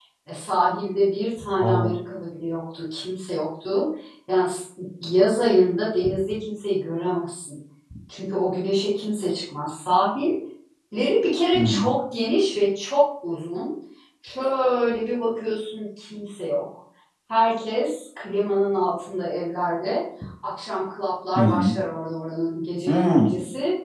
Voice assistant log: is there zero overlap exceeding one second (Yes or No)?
Yes